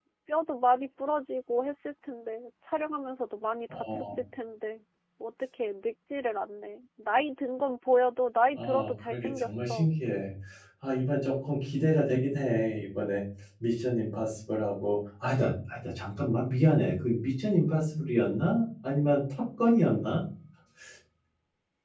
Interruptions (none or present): present